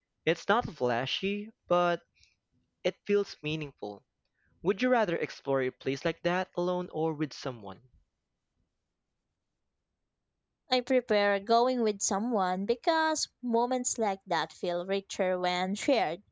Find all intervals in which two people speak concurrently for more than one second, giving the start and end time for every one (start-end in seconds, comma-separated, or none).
none